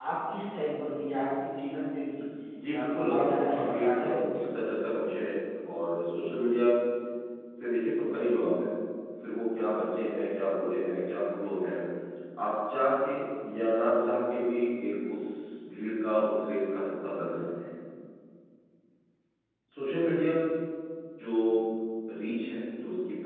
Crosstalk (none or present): present